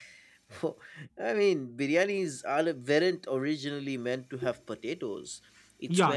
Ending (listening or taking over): taking over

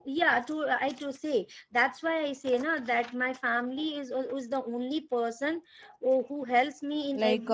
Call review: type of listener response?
taking over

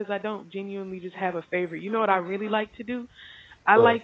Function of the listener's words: listening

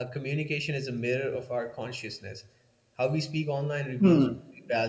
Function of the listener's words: listening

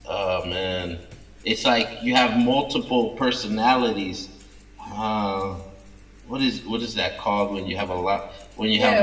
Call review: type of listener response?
taking over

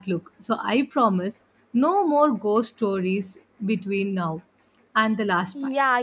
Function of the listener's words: taking over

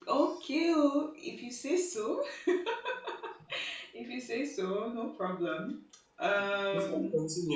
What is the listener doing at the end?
taking over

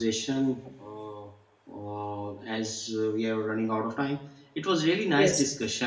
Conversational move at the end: listening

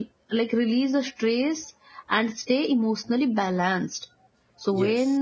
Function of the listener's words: listening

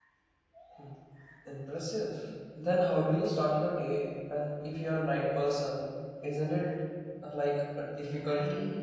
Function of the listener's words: taking over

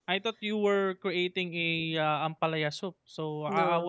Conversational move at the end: listening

